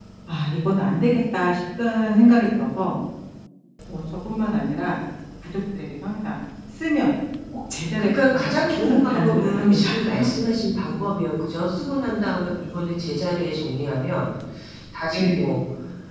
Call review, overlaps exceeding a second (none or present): present